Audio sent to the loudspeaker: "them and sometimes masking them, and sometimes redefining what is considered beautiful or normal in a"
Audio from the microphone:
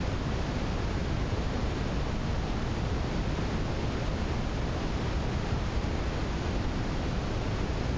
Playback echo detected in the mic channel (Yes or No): No